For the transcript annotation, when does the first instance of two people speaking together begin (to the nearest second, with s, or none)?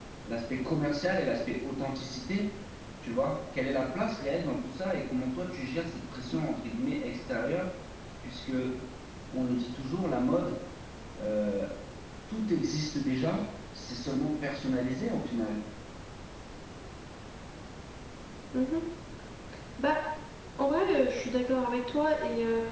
none